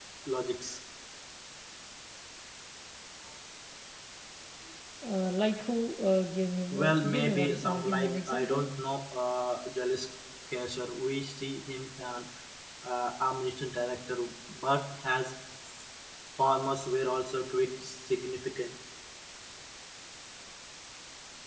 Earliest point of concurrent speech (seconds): 7 s

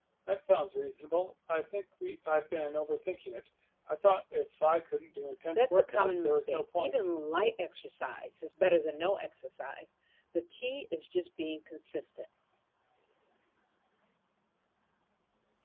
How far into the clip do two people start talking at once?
6 s

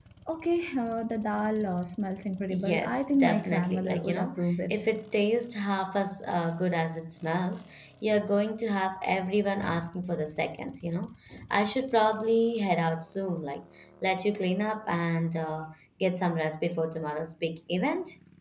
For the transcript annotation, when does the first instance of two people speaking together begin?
3 s

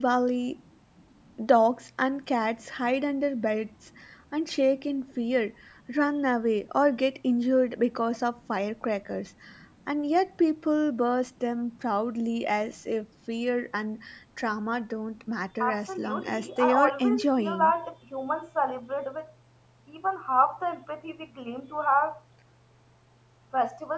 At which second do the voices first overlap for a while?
16 s

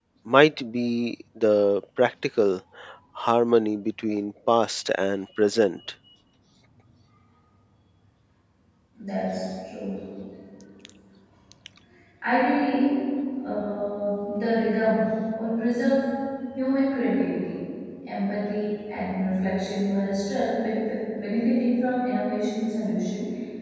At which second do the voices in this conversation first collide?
none

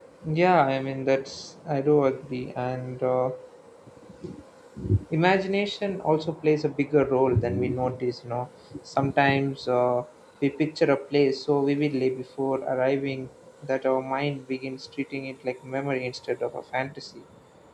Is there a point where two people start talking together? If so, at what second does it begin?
none

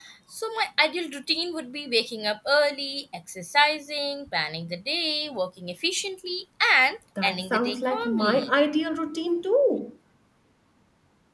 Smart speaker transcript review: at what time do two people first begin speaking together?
7 s

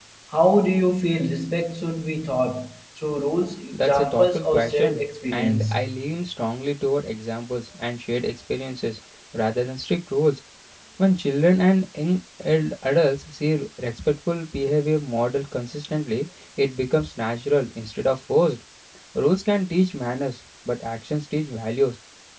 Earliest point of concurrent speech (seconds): 4 s

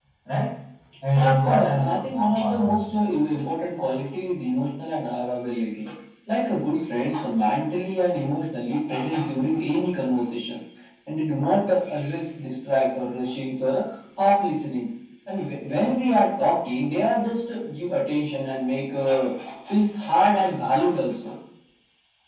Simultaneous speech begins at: 1 s

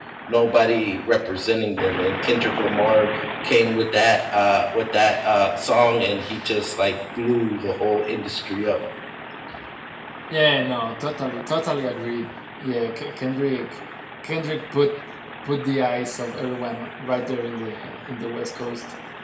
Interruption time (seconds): none

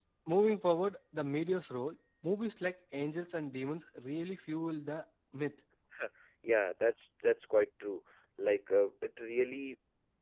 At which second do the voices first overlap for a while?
none

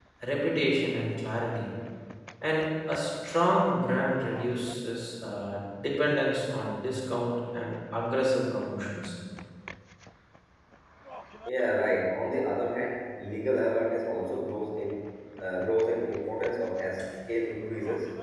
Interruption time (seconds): none

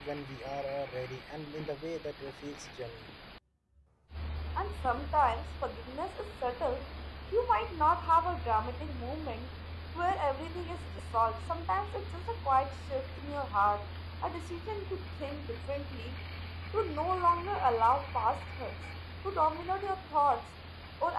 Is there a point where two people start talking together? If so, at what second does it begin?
none

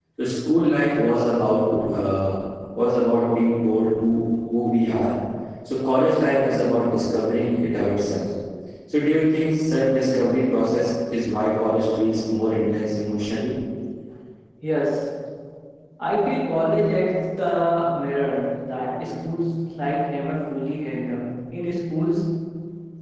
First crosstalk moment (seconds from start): none

